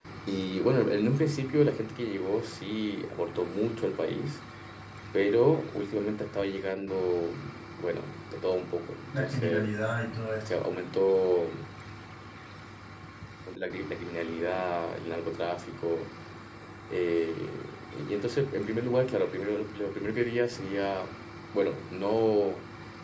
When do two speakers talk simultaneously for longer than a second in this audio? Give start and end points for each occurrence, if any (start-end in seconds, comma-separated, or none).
none